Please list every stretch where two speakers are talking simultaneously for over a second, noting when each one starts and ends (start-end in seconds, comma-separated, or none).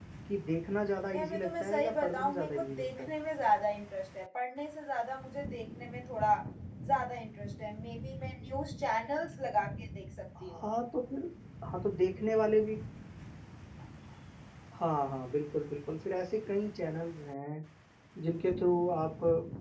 1.1-3.1